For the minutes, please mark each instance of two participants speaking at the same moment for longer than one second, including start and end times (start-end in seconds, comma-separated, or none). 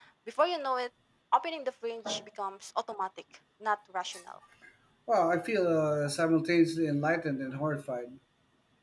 none